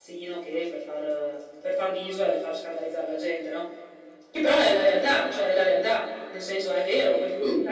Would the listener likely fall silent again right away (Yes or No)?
Yes